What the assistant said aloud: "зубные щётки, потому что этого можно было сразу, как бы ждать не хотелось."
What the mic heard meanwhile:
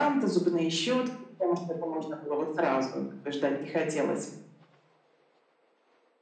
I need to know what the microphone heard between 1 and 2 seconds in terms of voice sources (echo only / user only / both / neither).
echo only